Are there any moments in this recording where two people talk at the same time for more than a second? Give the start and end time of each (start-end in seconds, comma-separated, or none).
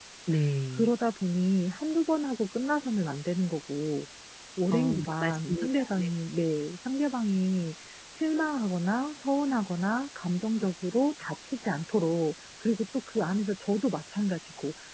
4.7-6.1